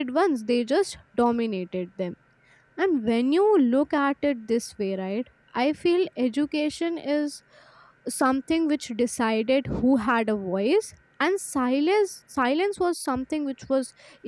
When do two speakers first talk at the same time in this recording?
none

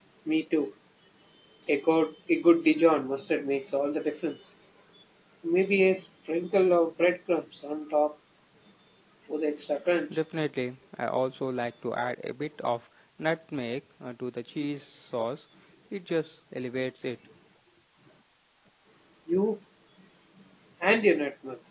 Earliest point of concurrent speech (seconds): none

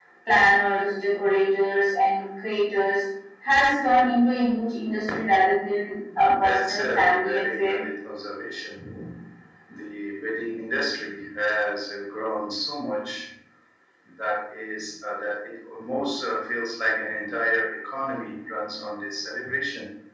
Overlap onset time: 6.2 s

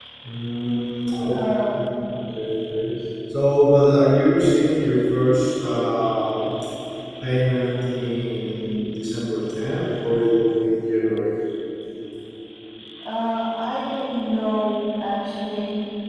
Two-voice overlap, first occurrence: none

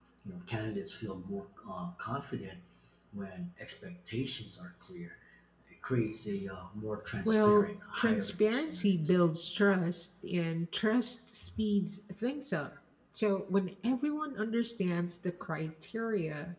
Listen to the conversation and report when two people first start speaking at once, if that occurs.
7.1 s

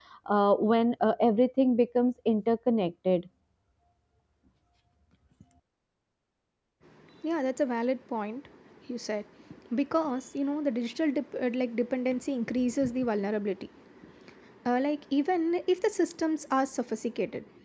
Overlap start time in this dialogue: none

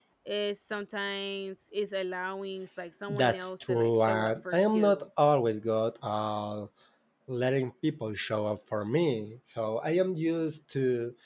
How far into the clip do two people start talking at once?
3.1 s

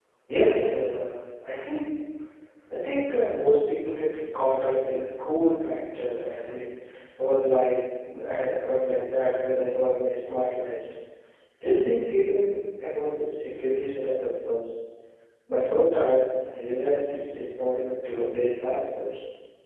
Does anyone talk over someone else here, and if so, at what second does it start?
none

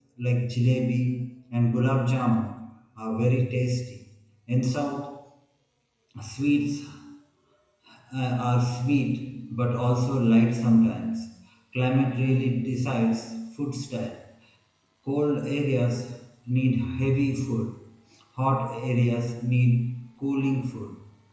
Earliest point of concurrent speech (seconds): none

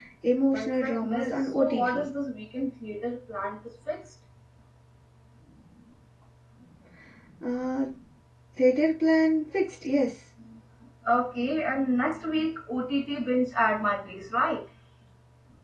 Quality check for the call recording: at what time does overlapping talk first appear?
0.5 s

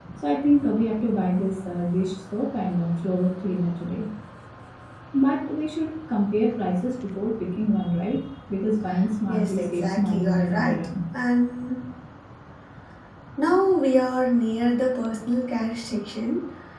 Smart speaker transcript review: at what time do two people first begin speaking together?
9.3 s

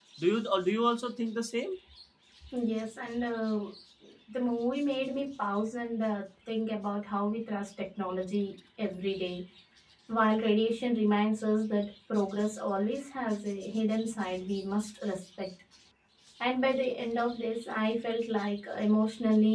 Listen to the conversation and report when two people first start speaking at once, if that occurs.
none

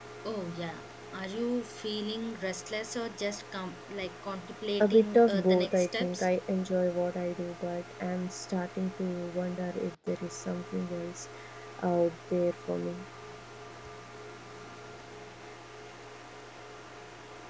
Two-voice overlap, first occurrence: 4.8 s

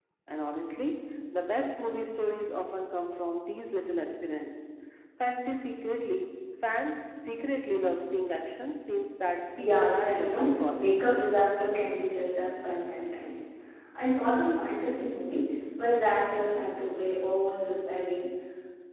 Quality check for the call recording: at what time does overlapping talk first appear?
9.6 s

